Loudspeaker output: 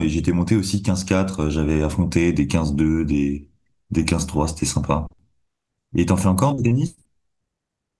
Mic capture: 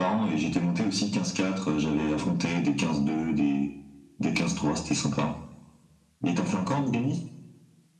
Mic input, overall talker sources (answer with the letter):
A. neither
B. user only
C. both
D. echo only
D